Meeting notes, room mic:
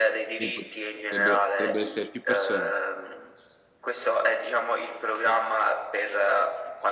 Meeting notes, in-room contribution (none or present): present